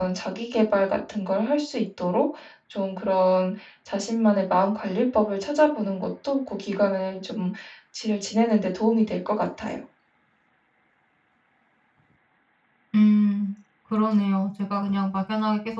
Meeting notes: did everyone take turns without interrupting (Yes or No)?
Yes